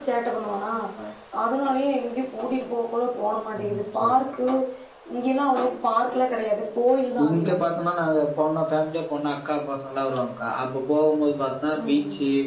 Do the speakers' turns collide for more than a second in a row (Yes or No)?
No